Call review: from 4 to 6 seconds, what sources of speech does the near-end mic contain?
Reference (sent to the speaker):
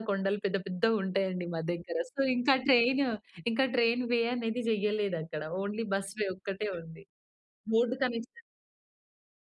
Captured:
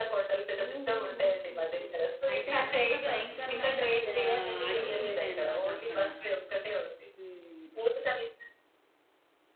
both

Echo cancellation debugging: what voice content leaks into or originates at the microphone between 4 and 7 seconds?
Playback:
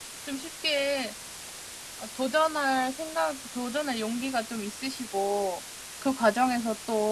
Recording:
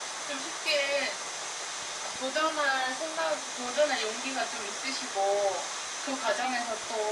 echo only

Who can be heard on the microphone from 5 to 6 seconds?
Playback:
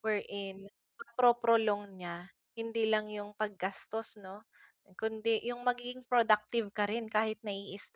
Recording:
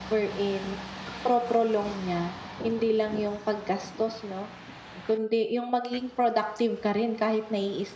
echo only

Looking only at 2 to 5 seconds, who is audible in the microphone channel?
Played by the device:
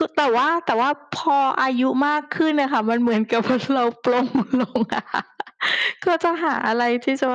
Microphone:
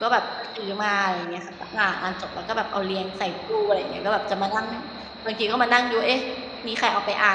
user only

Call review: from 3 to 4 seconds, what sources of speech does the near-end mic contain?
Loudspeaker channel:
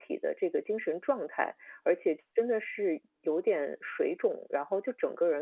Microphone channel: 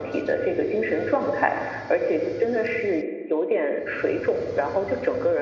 echo only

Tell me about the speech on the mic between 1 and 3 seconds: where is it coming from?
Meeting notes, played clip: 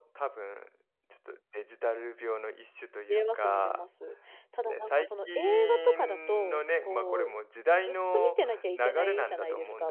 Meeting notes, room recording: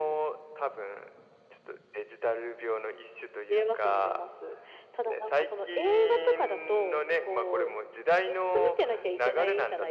echo only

